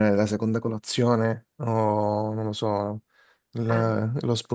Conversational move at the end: listening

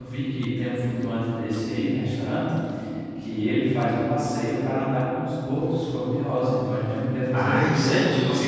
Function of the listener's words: taking over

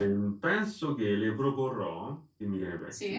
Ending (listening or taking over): listening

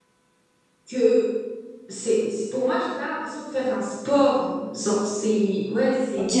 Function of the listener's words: taking over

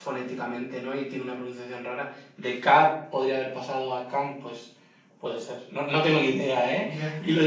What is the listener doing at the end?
listening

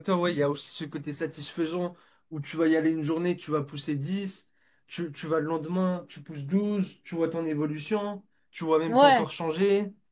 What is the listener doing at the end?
listening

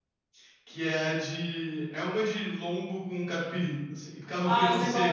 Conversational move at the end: taking over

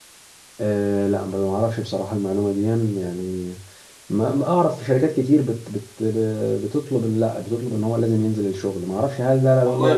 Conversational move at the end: taking over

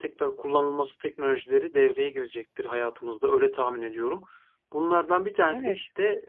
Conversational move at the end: listening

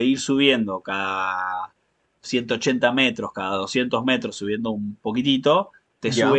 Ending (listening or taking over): listening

